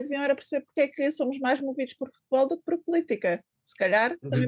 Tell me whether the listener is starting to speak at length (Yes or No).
Yes